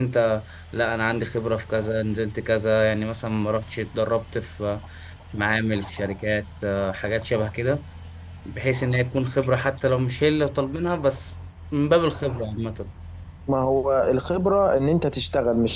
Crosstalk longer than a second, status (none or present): none